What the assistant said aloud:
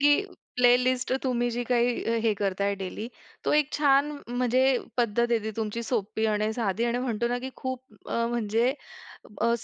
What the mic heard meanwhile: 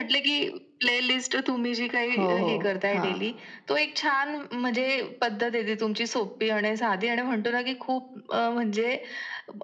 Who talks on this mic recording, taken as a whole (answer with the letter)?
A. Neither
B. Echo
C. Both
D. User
C